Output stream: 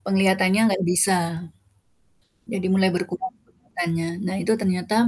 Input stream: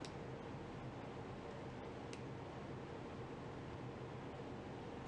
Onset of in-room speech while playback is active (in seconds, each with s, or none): none